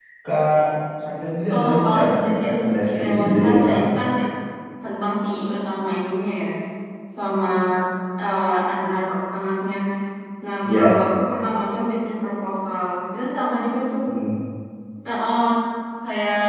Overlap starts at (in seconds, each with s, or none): 1.5 s